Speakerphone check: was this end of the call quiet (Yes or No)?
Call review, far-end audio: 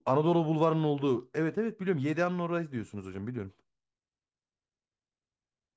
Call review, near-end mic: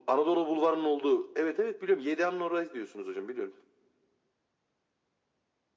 Yes